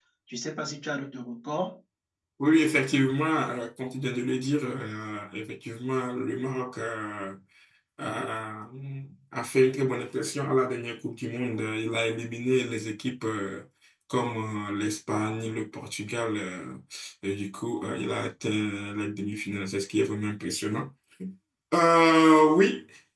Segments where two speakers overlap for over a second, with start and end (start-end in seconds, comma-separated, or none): none